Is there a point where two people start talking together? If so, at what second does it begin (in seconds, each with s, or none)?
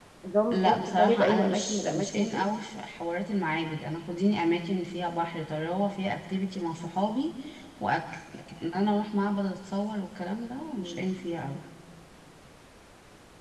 0.5 s